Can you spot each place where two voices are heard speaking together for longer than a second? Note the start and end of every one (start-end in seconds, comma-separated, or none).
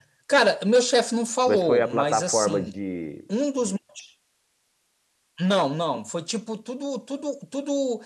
1.5-2.7